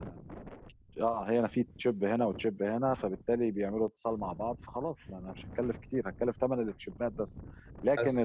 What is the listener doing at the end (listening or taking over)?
listening